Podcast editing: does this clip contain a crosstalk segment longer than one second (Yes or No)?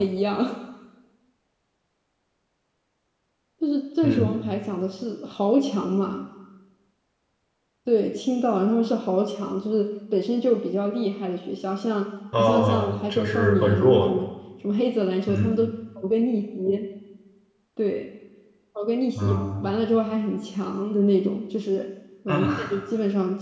Yes